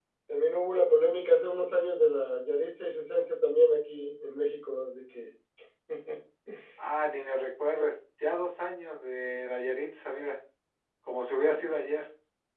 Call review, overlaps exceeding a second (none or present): none